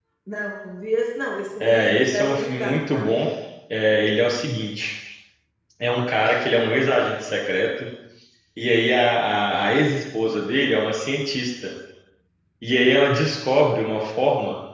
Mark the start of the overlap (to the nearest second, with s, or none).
2 s